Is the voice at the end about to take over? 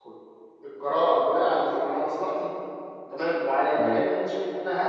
No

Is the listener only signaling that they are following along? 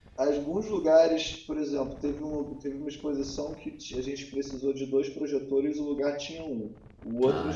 Yes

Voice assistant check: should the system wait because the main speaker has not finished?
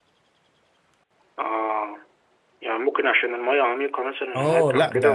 No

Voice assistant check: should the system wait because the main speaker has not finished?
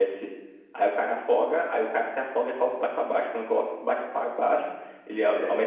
Yes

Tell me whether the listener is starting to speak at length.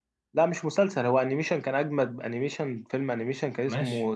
No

